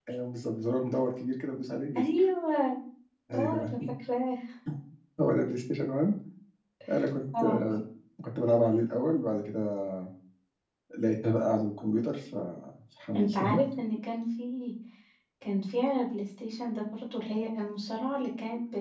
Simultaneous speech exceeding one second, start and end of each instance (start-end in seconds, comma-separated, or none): none